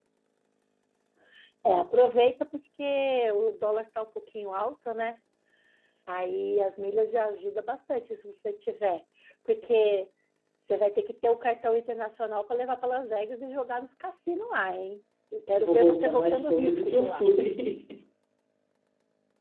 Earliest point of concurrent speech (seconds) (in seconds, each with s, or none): 15.6 s